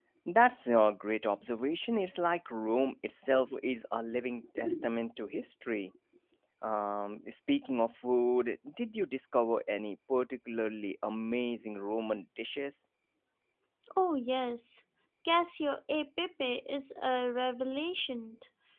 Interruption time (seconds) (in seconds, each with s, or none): none